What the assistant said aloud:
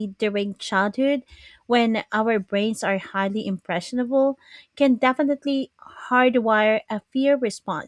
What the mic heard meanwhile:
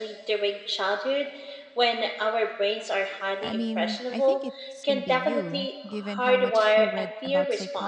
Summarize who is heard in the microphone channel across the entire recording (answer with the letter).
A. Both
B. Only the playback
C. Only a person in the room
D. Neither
A